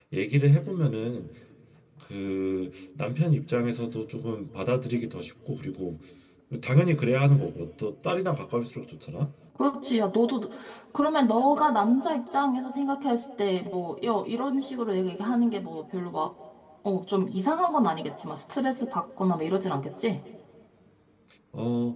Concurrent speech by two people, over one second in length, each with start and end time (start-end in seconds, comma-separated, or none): none